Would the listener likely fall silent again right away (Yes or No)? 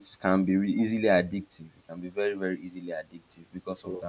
Yes